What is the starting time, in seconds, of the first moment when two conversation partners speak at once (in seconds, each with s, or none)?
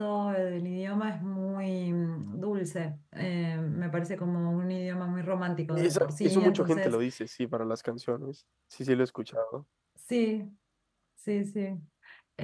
5.7 s